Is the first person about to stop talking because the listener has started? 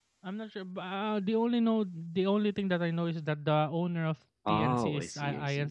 Yes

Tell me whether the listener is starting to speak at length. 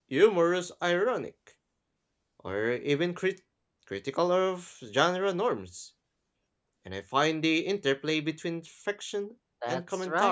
Yes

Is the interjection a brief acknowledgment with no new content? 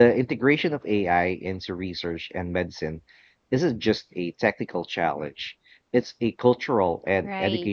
No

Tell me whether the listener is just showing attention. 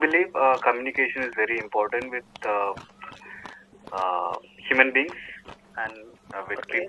No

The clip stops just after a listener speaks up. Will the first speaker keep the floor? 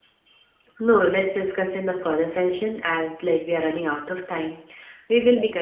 Yes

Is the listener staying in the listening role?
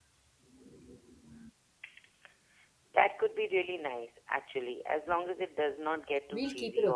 No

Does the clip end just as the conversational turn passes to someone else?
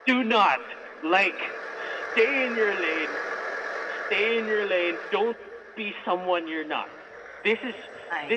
No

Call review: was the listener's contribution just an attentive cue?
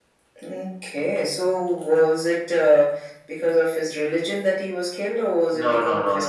No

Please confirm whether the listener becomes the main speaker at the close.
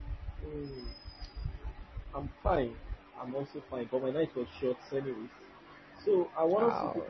No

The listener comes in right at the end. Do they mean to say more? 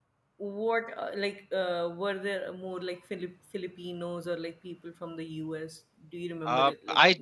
Yes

